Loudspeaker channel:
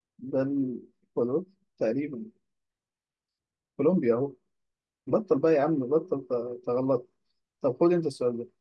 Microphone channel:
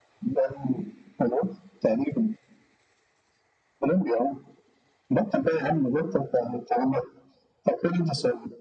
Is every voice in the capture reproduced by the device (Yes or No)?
Yes